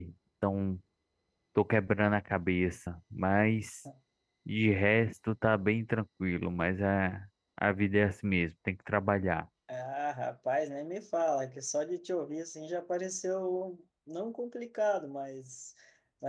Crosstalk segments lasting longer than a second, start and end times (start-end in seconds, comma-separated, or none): none